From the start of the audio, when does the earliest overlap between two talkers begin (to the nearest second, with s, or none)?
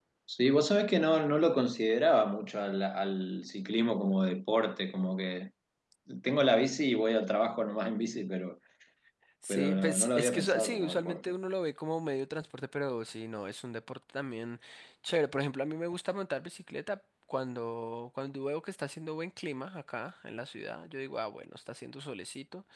9 s